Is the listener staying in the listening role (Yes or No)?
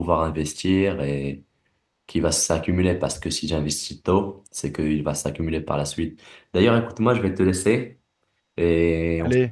No